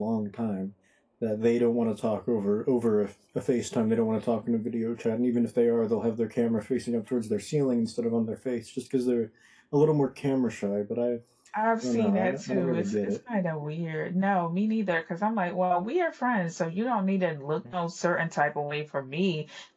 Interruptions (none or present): present